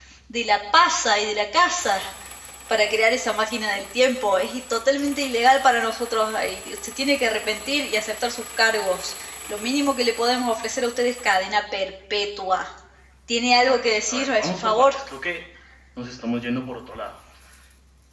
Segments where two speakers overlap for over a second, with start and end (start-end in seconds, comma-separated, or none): 13.7-14.9